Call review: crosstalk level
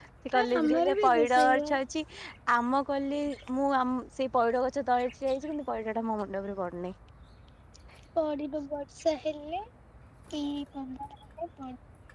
present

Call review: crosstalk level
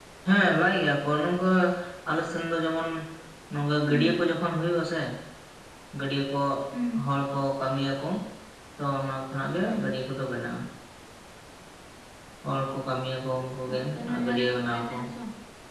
present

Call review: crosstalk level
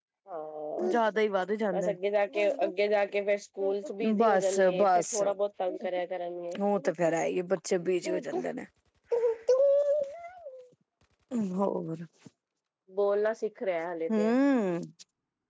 present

